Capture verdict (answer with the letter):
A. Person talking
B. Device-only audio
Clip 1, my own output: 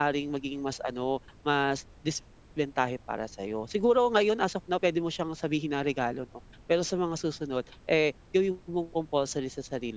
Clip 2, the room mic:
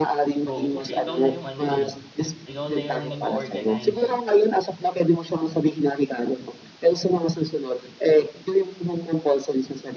A